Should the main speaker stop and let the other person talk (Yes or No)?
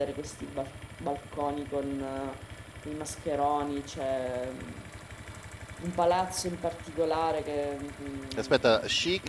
Yes